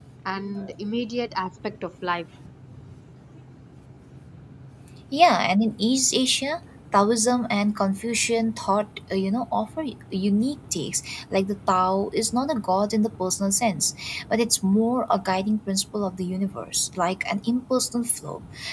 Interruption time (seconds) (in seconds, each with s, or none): none